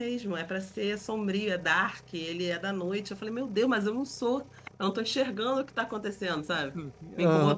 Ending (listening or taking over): taking over